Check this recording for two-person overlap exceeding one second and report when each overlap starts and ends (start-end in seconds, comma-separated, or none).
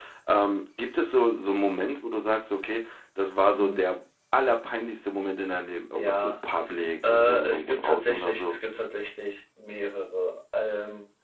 7.0-8.6